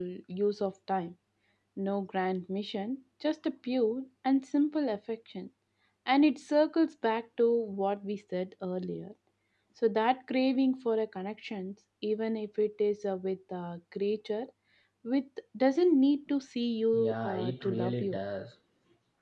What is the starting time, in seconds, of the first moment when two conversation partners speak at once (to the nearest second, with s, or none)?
17 s